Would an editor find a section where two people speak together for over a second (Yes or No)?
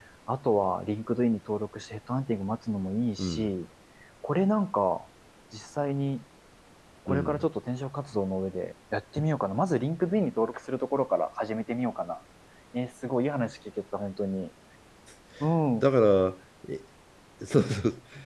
No